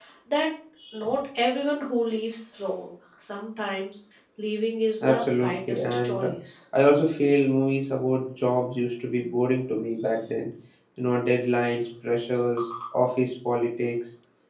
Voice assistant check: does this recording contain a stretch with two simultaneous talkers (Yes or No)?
Yes